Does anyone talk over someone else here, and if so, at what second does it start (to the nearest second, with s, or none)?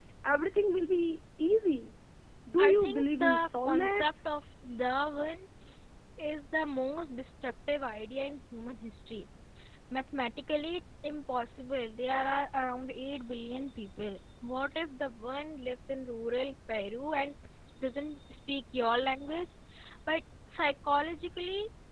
3 s